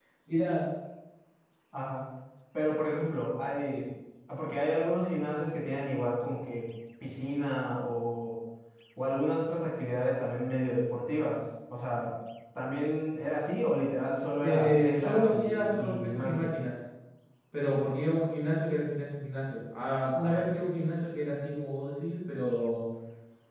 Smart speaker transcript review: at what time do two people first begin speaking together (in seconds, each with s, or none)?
14.4 s